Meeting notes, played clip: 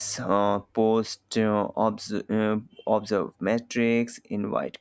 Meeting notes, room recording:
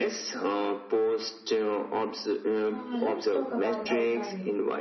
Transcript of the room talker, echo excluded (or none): Uh, let's talk about outlining.